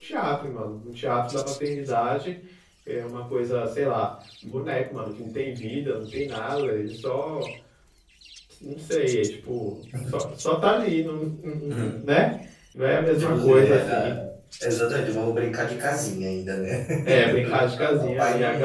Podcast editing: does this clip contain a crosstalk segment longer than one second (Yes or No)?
Yes